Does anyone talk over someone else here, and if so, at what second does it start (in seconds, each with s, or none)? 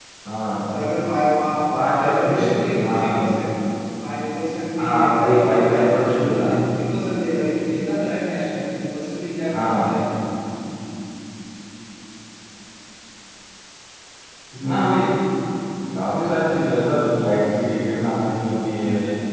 1.7 s